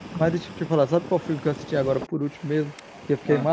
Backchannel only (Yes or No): Yes